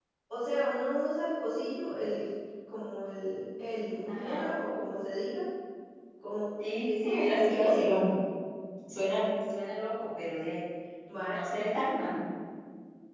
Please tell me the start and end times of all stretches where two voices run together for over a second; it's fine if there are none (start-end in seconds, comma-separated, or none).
6.9-8.1